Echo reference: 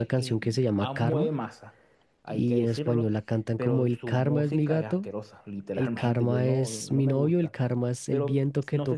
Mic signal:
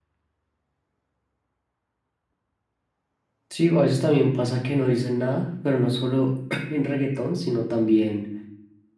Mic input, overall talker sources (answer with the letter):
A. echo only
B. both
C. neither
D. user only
D